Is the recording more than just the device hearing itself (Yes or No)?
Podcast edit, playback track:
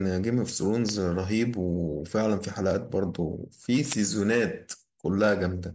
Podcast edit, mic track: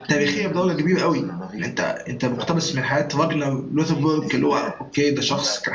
Yes